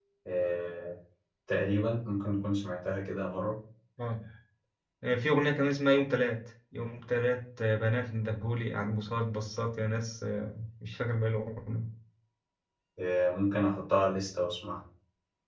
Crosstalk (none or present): none